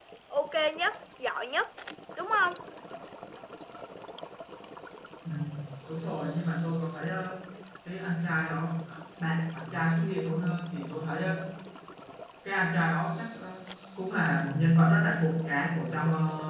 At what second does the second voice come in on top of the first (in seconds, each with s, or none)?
none